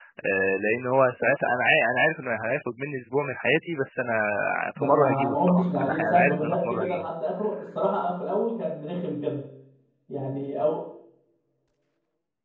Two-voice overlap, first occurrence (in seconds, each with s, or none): 4.8 s